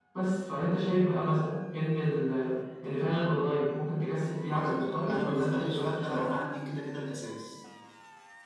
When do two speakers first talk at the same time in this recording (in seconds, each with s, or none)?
4.6 s